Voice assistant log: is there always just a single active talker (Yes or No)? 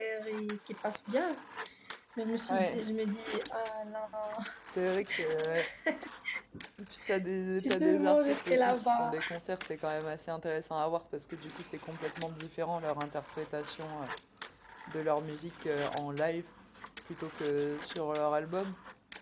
No